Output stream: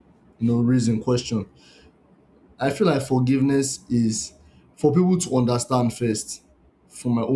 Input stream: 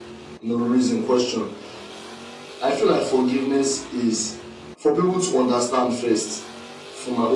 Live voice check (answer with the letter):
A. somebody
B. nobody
B